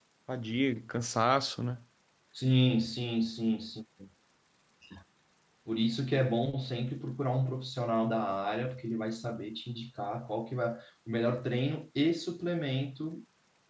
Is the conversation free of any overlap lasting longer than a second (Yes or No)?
Yes